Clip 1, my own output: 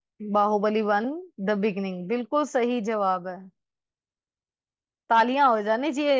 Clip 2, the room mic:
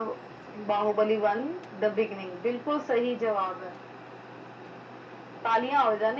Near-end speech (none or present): none